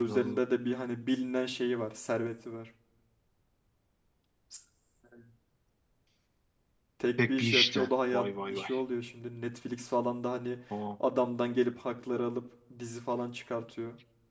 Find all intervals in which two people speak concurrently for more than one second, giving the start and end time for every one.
7.4-8.7

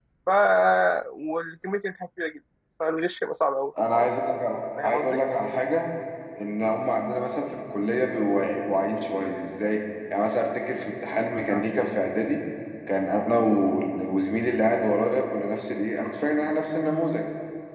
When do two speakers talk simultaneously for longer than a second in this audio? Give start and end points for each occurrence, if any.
none

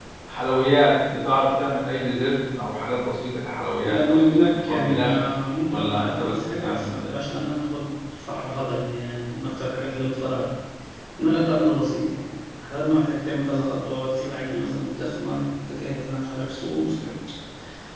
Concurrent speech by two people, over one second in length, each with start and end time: 3.8-5.1, 5.7-7.2

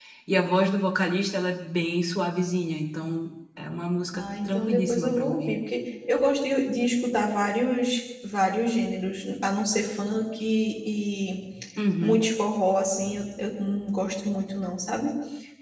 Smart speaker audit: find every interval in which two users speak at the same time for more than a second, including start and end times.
4.1-5.5

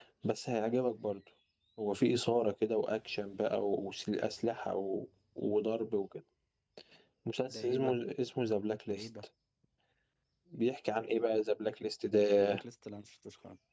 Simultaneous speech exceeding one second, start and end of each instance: none

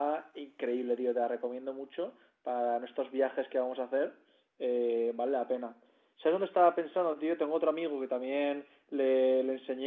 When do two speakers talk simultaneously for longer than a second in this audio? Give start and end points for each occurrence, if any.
none

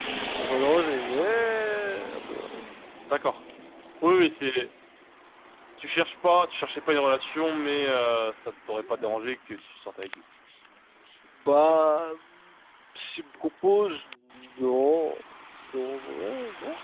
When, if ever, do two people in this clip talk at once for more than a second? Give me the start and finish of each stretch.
none

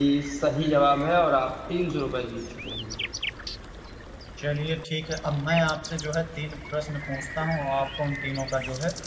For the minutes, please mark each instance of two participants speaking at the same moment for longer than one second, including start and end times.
none

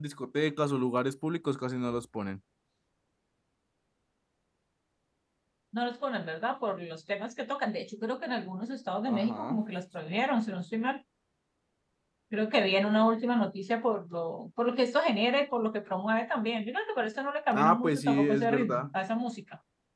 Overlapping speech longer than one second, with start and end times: 17.5-18.8

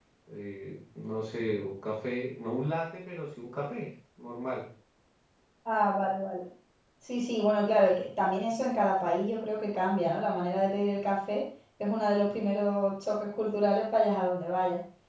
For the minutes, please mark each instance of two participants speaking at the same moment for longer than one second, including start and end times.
none

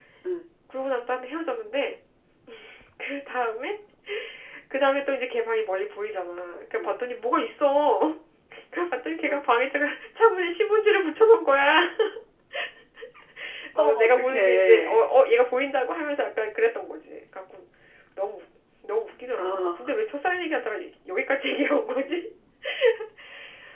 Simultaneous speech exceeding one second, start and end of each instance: 13.8-15.1

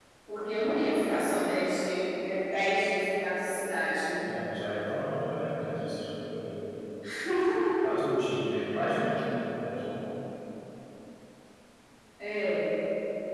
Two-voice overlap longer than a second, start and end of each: none

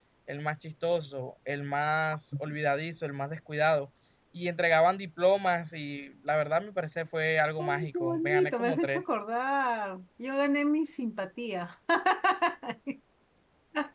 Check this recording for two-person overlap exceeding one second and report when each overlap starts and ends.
7.6-9.0

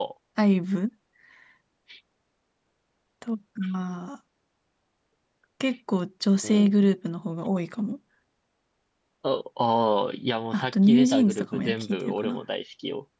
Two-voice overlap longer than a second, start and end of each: 10.5-12.4

